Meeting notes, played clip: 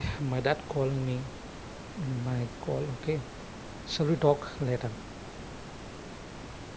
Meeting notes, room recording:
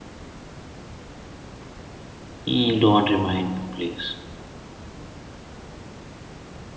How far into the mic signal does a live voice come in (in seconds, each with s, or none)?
2.5 s